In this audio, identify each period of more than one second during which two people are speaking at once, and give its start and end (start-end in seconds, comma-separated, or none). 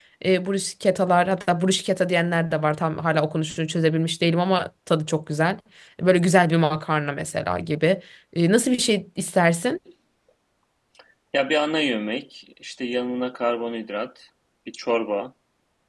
none